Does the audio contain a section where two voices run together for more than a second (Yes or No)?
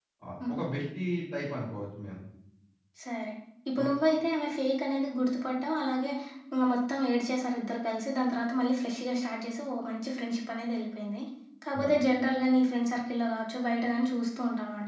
No